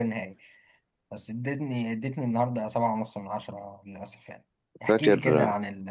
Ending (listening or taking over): listening